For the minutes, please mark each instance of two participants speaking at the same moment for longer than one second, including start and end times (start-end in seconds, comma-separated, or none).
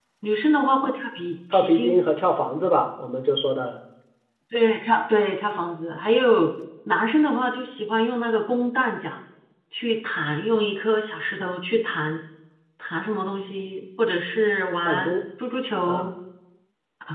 none